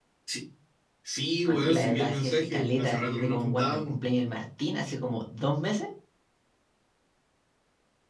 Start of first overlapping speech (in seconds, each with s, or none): 1.5 s